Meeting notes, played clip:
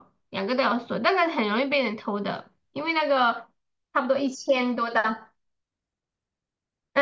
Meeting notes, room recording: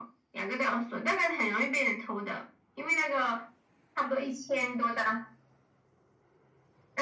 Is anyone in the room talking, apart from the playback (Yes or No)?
No